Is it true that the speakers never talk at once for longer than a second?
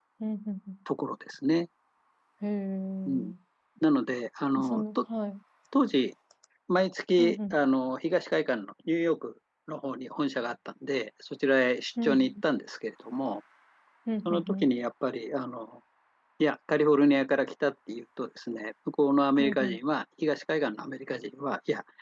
Yes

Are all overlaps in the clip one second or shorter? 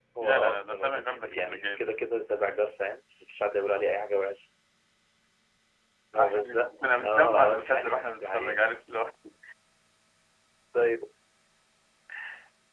No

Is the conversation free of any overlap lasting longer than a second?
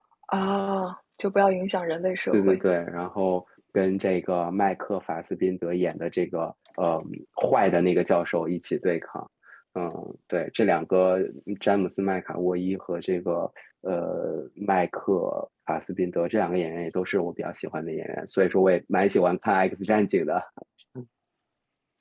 Yes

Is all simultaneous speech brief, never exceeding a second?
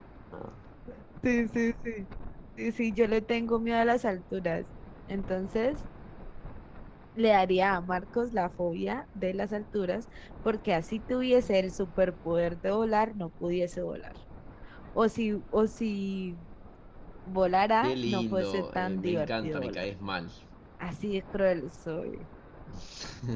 No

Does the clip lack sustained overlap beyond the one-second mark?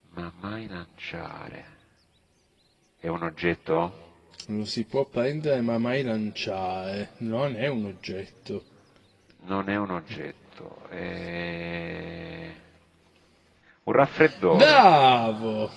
Yes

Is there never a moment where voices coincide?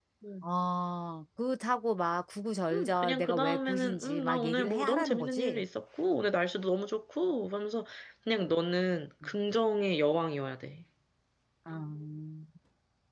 No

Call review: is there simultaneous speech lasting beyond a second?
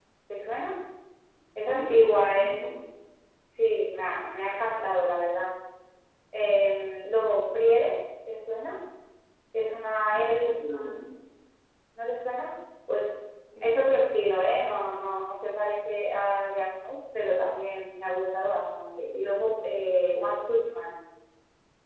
Yes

